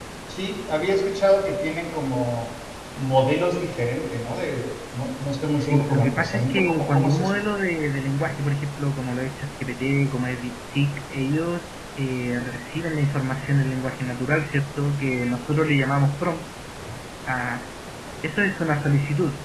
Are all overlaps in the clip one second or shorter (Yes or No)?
No